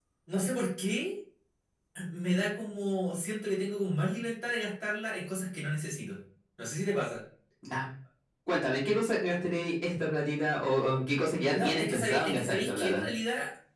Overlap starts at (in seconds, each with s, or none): 11.5 s